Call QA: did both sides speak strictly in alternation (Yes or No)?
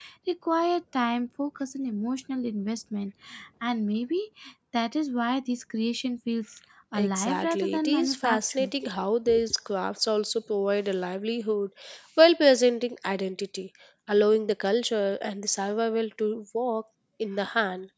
No